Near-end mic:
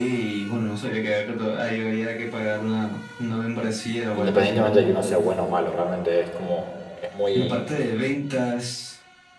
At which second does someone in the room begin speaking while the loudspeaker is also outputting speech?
4.1 s

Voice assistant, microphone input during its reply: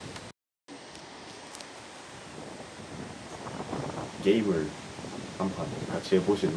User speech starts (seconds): 4.2 s

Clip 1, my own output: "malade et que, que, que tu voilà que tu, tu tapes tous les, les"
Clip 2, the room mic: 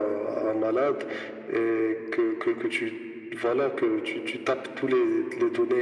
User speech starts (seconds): none

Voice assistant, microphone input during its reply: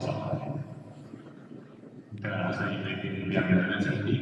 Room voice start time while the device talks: none

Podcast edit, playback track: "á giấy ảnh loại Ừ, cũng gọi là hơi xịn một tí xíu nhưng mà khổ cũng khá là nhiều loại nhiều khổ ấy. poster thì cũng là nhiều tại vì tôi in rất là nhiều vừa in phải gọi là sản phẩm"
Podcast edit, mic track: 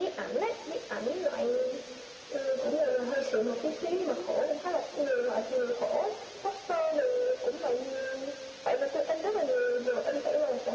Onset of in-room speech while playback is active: none

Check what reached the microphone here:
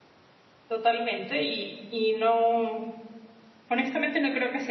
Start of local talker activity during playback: 0.7 s

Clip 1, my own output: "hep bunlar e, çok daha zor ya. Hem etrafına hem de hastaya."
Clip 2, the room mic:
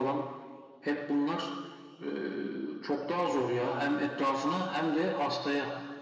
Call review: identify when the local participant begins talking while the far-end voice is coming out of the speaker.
none

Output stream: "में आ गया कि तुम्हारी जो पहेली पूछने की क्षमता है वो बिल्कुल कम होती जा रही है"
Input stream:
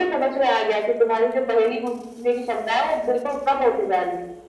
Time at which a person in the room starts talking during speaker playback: none

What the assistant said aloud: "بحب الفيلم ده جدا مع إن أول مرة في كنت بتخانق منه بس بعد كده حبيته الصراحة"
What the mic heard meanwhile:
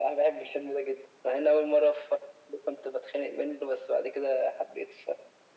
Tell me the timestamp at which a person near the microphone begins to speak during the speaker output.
none

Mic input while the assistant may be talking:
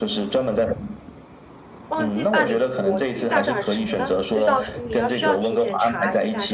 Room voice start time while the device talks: 1.9 s

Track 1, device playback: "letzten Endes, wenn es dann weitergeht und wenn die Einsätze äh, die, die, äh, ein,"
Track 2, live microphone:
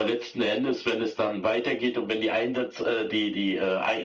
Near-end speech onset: none

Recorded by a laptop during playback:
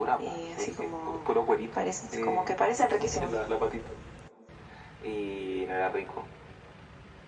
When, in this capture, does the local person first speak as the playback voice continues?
none

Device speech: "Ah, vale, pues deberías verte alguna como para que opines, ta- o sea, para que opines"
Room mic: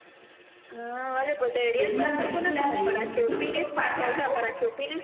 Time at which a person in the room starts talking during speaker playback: 1.7 s

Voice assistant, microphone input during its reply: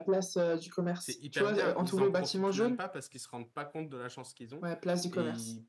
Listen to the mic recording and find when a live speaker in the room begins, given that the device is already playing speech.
1.0 s

